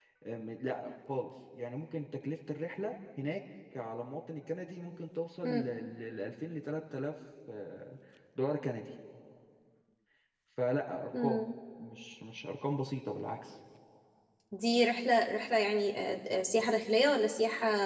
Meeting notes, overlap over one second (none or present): none